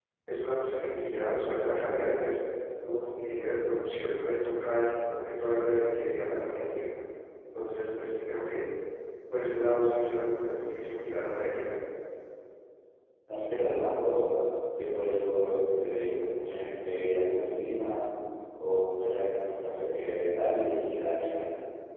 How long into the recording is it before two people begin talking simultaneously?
none

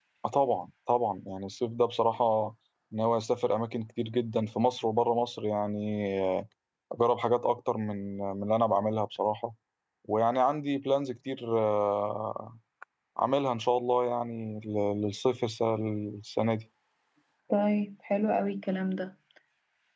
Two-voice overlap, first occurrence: none

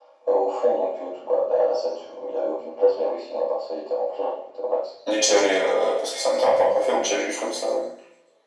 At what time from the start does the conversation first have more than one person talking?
none

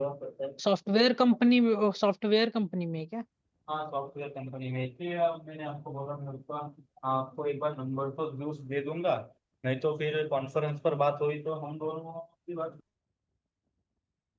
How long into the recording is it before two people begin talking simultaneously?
none

